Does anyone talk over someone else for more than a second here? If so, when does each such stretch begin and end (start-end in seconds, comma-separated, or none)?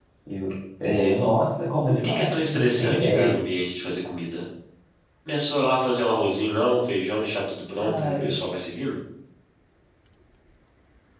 1.8-3.4